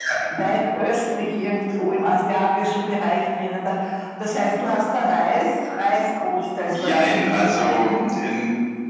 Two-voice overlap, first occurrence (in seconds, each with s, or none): 6.7 s